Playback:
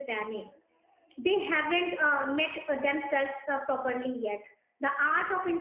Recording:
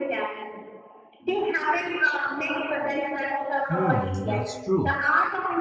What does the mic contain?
both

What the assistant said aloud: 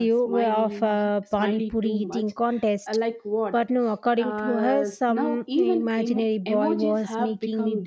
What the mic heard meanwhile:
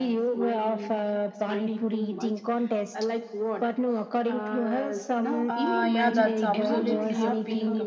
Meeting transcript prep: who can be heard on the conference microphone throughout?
both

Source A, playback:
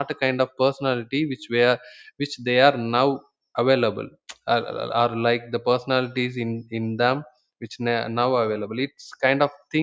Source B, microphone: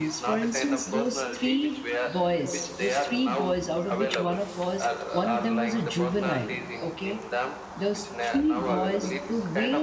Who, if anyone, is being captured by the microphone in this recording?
both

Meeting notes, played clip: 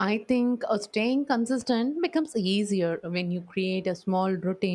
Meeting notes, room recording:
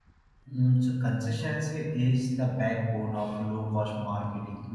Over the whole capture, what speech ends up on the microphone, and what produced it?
user only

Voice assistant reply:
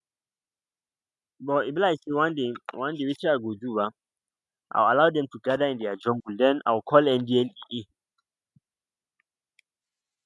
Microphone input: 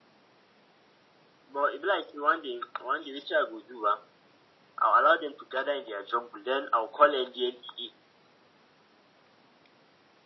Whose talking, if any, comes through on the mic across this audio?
echo only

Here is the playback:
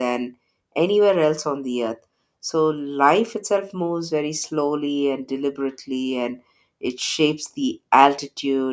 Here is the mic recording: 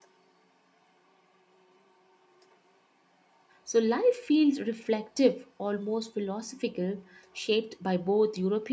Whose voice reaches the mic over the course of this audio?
user only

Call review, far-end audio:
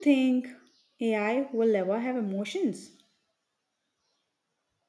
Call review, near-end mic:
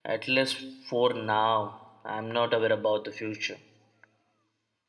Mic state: user only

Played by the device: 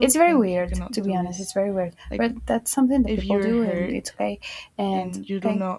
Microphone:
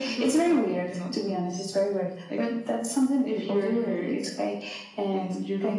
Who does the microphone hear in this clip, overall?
echo only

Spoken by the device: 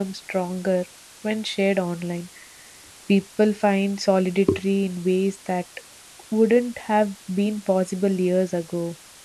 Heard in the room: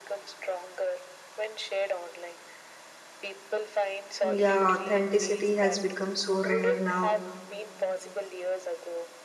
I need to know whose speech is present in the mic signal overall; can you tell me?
both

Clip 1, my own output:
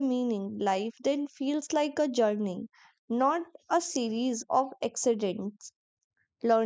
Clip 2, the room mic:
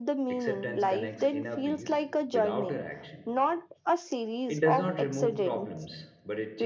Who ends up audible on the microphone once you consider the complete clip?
both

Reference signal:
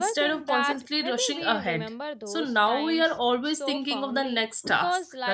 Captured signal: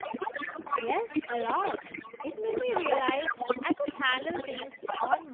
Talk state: both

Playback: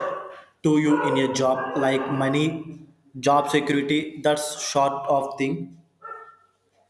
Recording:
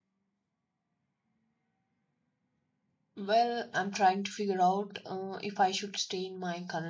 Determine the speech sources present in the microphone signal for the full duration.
user only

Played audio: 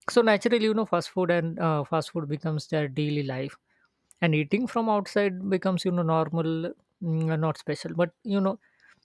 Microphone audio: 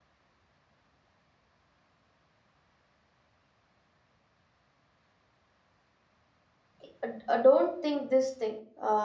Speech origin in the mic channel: user only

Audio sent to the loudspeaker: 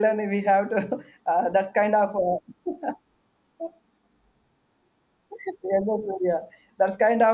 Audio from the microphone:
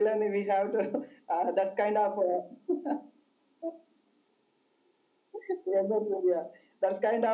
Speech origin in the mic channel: echo only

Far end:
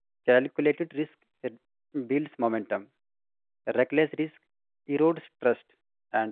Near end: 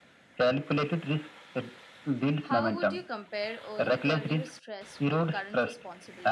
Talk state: both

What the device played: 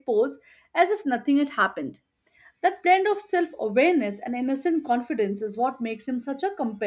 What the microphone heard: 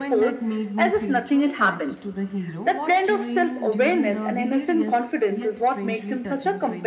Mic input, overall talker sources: both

